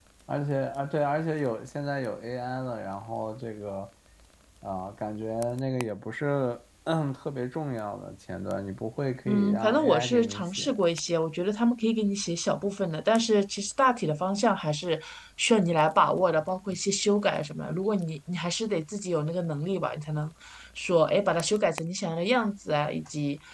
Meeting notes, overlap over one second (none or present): present